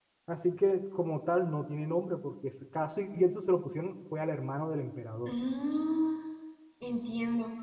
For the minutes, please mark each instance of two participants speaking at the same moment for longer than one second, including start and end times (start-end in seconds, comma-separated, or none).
none